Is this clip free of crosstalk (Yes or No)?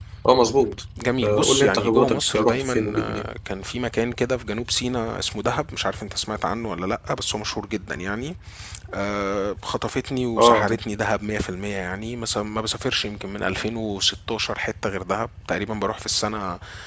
No